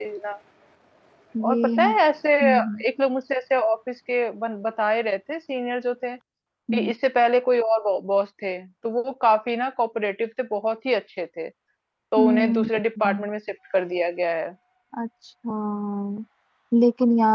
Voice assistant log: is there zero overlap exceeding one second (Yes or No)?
Yes